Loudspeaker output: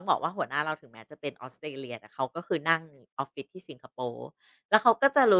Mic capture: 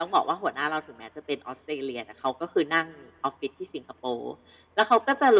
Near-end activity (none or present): none